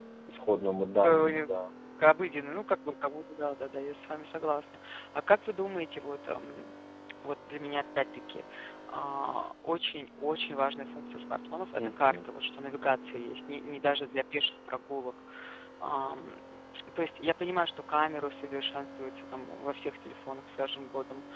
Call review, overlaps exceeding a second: none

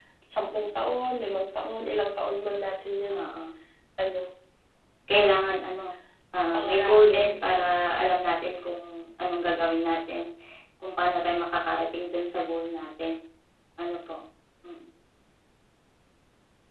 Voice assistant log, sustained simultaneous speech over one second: present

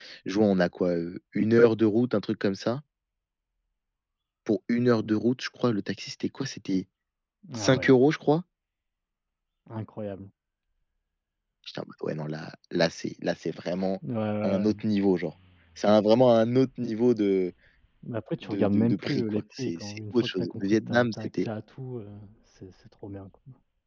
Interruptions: present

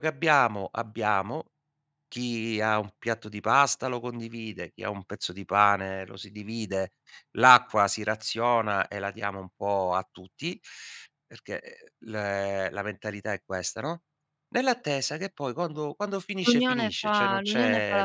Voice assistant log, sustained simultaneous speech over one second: present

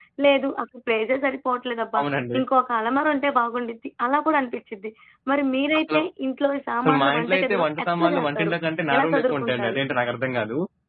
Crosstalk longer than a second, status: present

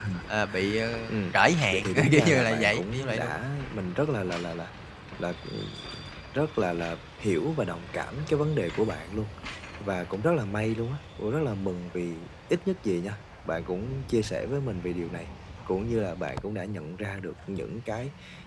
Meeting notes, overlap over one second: present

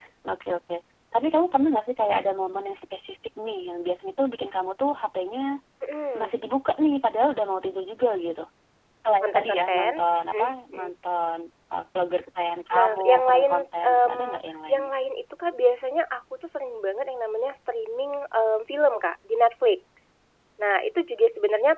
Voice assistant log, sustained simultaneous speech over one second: present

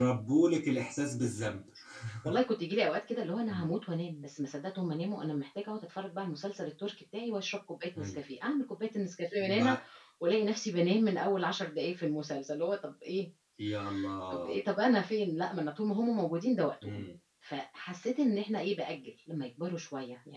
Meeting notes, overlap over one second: none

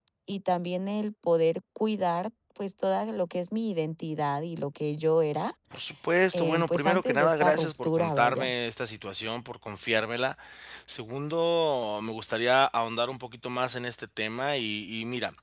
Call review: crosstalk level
present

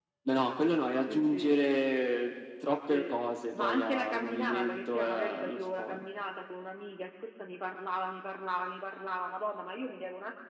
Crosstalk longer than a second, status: present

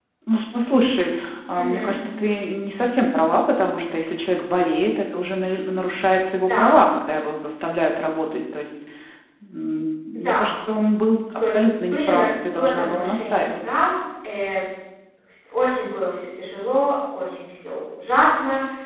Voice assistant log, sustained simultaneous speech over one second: present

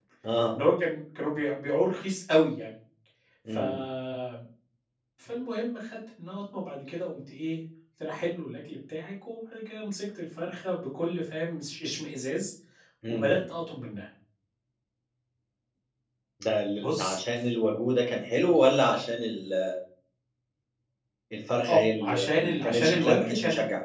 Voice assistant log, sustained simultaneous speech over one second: present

